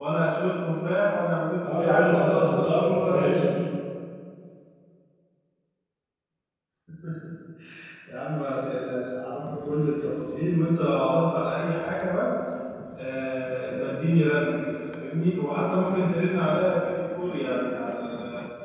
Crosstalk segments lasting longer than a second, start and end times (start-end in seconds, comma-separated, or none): 1.6-3.4